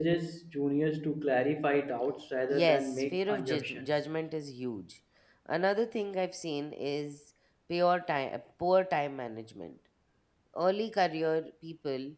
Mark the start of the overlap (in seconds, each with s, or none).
2.5 s